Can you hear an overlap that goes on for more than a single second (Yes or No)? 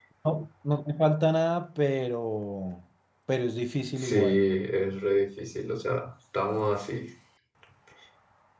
No